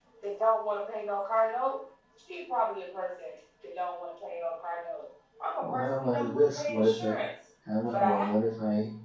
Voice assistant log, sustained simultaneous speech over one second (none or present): present